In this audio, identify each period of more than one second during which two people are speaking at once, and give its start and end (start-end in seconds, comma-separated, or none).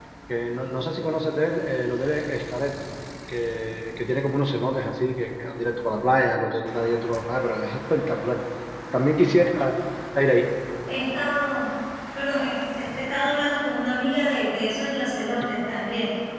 none